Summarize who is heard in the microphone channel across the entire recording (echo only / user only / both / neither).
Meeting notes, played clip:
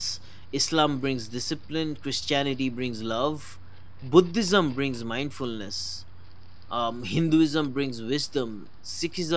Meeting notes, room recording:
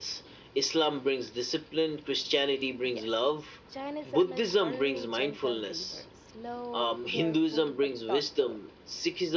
both